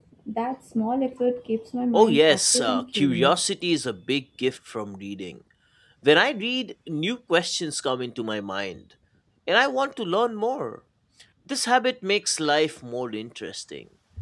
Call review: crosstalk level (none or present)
present